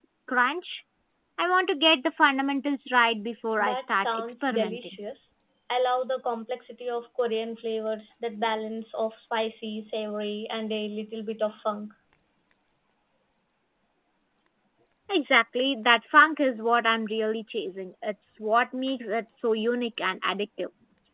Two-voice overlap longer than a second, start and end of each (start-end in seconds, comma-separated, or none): 3.6-5.0